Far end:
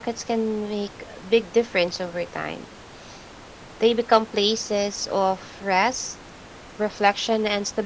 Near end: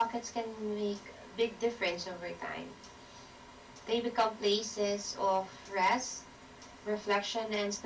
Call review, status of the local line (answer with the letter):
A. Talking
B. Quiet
B